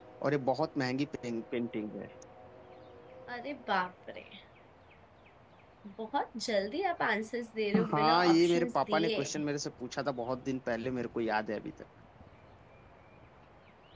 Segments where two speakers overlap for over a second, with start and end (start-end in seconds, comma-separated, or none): 7.9-9.2